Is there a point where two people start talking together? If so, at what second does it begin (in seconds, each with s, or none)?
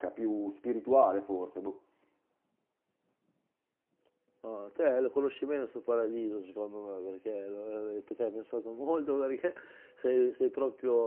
none